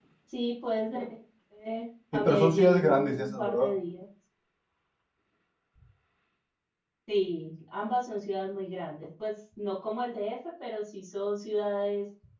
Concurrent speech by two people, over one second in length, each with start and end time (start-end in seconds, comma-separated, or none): 2.1-3.7